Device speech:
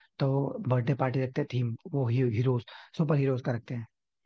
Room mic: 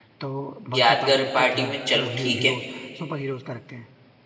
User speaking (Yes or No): Yes